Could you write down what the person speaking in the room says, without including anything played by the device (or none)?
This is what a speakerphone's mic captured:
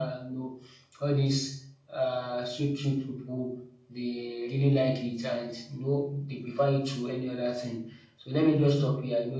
none